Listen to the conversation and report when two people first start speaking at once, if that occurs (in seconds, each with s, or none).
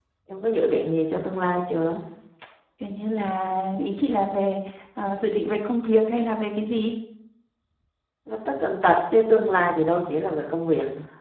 none